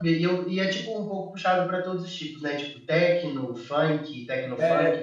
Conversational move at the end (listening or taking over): taking over